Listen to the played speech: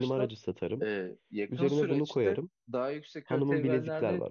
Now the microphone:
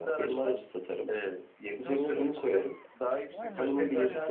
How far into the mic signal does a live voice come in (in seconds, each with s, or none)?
3.3 s